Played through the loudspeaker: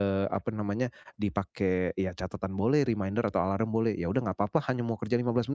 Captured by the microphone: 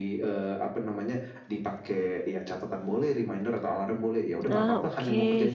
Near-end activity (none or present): present